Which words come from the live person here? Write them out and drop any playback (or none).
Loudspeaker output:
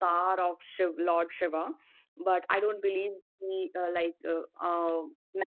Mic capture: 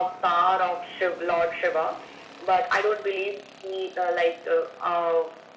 none